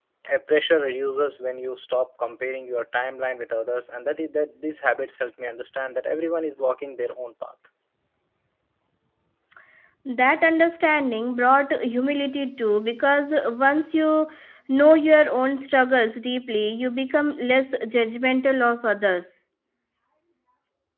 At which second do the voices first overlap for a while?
none

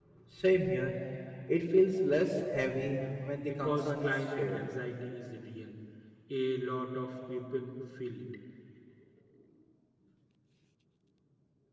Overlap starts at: 3.4 s

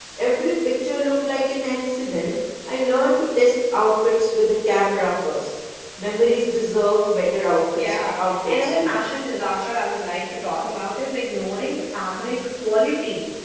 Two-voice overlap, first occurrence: 7.8 s

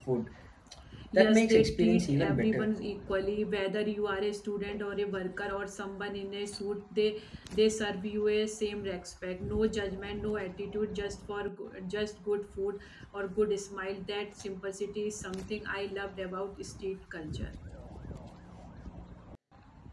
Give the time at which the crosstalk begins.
1.2 s

